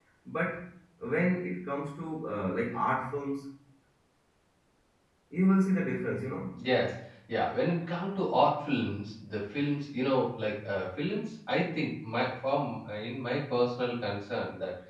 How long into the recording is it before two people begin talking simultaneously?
none

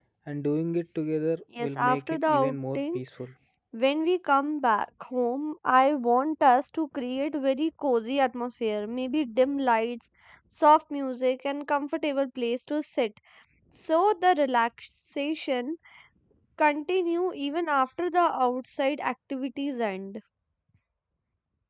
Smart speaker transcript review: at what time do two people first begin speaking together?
1.6 s

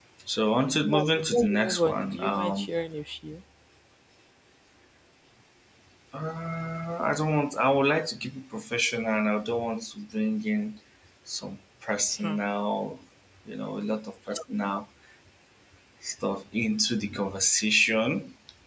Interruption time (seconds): 0.9 s

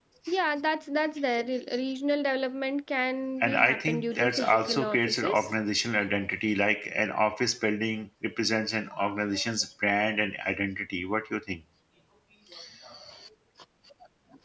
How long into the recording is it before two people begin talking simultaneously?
3.4 s

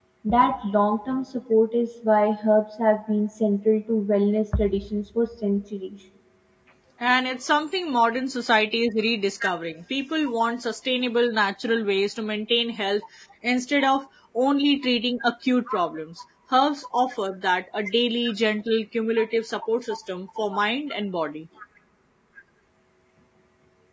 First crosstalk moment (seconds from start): none

